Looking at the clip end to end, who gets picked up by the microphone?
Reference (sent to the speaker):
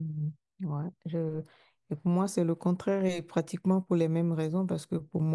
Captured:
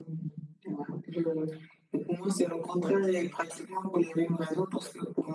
both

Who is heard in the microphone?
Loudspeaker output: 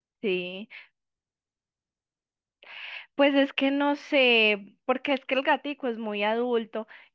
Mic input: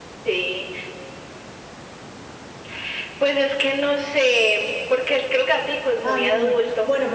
both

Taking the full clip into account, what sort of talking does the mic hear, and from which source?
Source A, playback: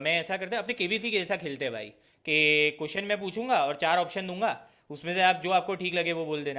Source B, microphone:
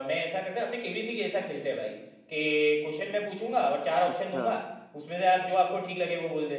both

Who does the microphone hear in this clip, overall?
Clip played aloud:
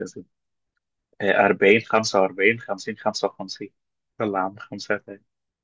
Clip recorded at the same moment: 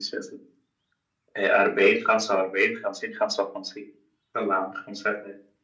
echo only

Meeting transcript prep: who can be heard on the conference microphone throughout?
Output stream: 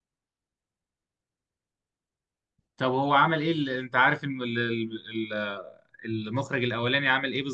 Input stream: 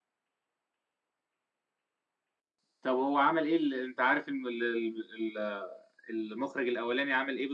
echo only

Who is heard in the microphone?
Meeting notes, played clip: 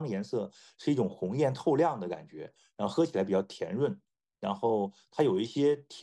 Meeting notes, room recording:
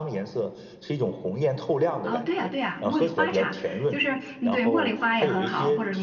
both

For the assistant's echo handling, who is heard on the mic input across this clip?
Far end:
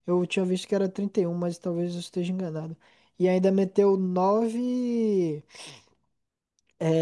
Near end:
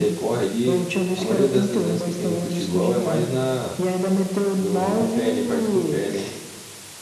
both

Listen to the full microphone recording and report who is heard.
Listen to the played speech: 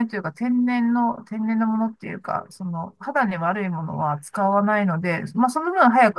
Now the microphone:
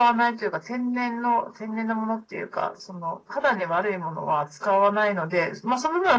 echo only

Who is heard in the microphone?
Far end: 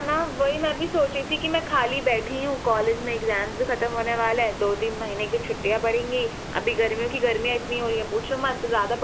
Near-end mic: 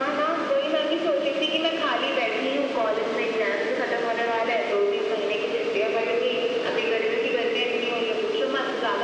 echo only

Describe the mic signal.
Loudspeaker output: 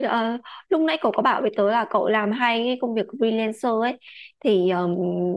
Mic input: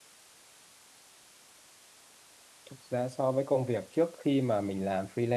user only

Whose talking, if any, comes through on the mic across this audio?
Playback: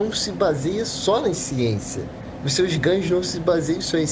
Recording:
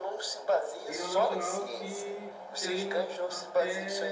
both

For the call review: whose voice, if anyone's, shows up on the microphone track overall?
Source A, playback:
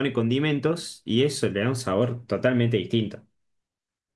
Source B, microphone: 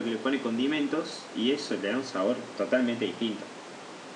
echo only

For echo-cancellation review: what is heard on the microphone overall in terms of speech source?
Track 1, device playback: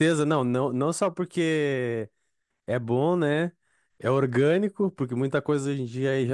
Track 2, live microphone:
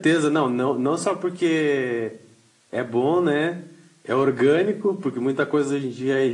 echo only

